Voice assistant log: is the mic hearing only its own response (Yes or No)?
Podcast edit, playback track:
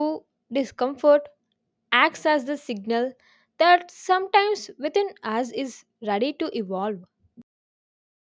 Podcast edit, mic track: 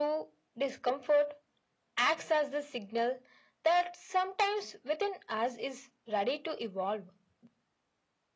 Yes